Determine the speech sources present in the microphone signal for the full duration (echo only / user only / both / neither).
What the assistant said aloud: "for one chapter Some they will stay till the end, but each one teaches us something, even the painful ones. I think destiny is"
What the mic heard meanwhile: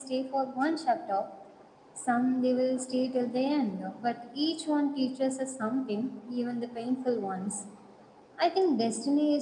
echo only